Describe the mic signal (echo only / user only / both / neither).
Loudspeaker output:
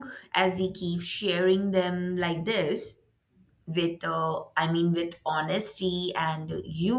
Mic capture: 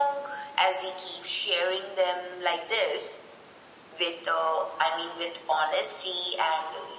echo only